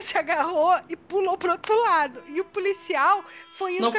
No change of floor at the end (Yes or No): Yes